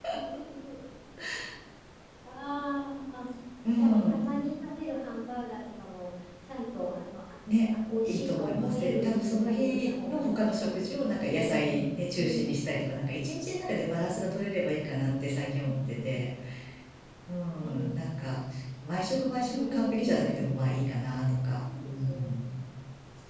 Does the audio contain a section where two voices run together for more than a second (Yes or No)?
Yes